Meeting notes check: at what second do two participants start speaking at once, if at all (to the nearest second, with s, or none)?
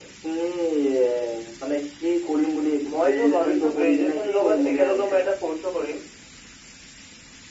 3 s